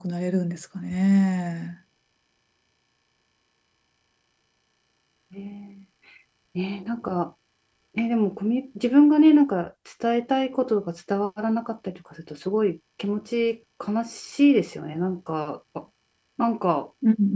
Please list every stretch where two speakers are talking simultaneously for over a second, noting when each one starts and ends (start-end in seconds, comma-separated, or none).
none